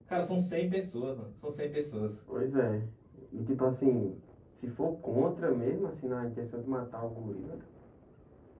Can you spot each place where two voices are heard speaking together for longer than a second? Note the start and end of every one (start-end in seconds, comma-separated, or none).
none